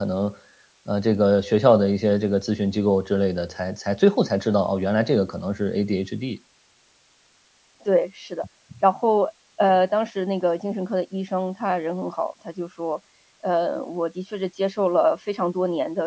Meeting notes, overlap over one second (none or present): none